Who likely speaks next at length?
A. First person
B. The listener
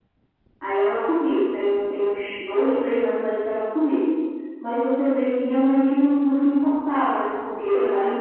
A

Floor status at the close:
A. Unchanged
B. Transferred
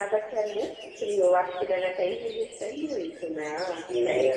B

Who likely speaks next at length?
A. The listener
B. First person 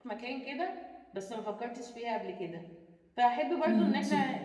B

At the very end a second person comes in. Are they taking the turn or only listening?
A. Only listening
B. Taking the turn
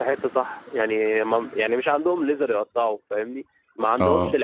A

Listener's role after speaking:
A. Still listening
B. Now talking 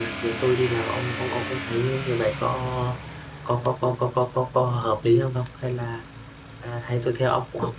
A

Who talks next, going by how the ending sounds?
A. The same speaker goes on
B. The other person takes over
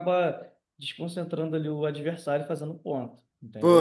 B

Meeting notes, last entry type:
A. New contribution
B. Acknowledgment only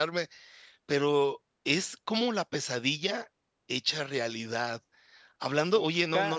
B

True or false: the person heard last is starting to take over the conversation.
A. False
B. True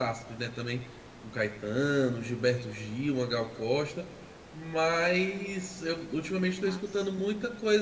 A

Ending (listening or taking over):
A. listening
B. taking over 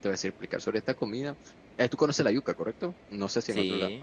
B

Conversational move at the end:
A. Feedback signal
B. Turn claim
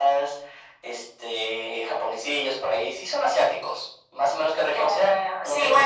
B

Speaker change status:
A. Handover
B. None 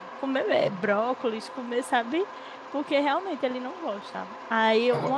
B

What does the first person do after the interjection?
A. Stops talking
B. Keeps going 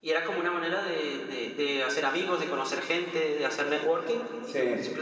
B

